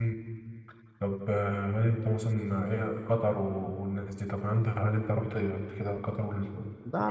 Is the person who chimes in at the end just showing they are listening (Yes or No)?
No